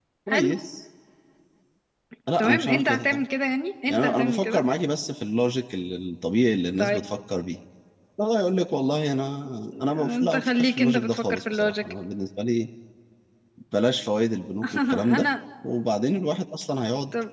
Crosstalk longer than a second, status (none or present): present